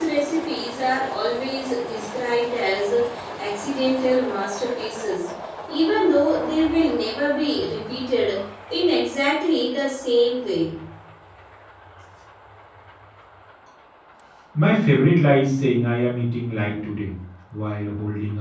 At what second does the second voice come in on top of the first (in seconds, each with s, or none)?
none